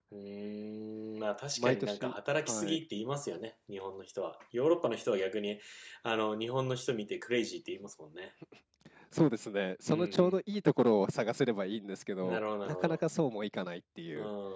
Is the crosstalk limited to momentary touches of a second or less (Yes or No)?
No